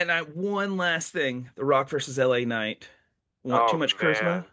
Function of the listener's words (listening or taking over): taking over